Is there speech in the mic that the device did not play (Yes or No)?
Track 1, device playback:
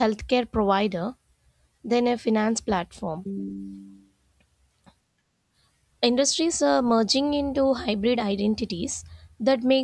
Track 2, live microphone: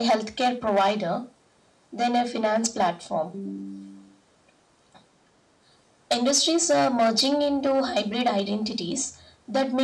No